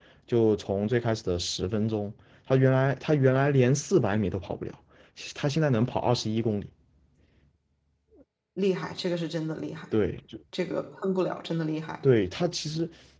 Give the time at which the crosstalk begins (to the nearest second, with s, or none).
none